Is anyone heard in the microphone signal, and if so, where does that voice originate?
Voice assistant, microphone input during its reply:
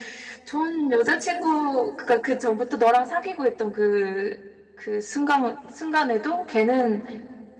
echo only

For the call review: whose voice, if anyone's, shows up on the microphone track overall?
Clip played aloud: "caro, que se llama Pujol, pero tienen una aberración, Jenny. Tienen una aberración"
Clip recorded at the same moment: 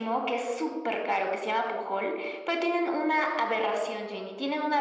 echo only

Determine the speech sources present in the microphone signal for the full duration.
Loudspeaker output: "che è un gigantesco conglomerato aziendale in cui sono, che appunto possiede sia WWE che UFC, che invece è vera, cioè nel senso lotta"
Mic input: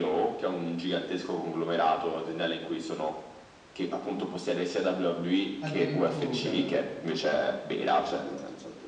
both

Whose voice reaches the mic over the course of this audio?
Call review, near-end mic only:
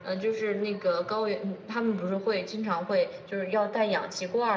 echo only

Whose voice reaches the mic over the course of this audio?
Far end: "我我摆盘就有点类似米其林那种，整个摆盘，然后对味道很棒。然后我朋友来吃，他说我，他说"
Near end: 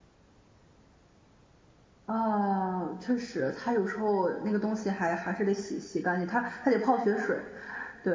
user only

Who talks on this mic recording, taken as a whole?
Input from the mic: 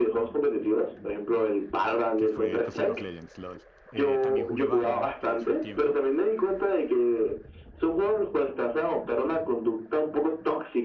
both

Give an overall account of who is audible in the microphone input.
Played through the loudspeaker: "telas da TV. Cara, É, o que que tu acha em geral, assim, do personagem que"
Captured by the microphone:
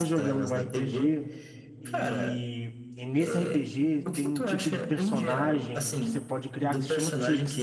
both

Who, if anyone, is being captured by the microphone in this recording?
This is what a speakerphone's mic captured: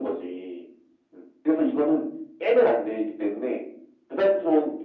echo only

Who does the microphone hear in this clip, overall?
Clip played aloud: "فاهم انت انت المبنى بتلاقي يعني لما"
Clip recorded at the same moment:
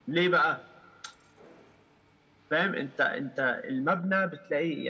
echo only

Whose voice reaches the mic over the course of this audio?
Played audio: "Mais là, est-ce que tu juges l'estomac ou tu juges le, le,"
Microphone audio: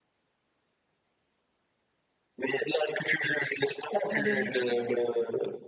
both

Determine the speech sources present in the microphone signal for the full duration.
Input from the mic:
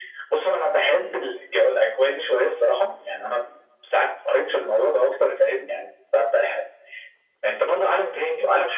both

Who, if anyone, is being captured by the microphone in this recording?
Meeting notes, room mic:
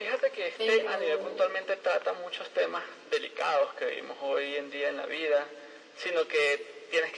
both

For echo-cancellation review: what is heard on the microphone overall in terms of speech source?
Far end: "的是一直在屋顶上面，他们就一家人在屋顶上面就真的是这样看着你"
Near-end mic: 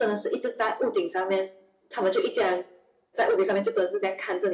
echo only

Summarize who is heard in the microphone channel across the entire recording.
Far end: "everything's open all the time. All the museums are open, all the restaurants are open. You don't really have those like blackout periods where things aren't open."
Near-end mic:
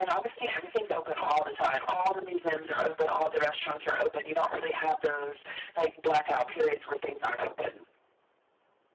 echo only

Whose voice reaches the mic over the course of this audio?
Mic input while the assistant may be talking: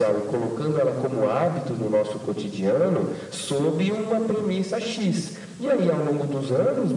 echo only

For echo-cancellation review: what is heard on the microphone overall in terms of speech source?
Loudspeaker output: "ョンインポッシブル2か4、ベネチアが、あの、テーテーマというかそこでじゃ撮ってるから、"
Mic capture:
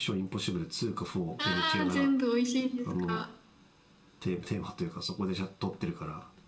both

